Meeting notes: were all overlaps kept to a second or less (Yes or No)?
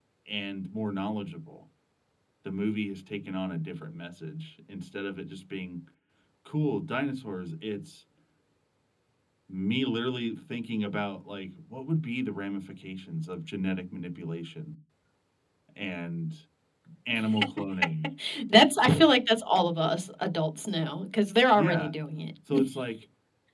Yes